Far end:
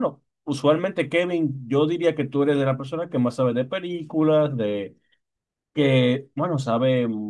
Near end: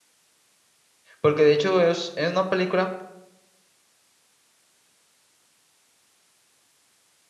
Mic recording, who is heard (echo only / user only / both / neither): user only